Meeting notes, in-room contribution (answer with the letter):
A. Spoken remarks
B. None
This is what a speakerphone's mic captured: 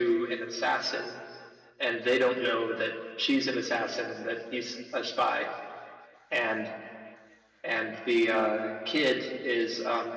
B